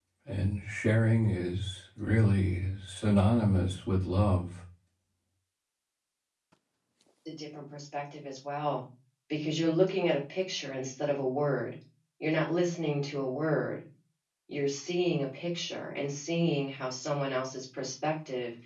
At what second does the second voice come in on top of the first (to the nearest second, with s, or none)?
none